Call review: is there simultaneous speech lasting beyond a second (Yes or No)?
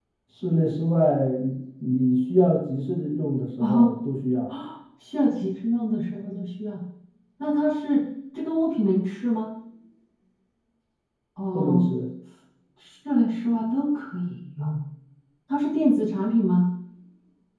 No